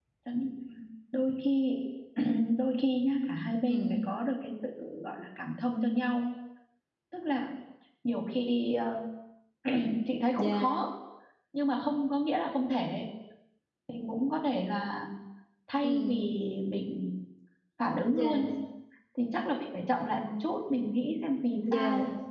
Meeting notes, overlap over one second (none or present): none